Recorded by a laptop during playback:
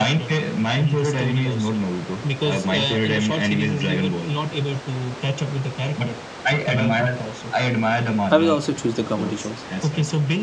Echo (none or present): present